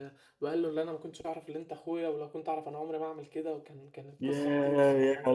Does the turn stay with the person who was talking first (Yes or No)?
No